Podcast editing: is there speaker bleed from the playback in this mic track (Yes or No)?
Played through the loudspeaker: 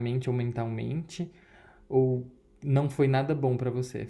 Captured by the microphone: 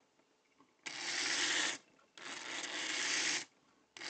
No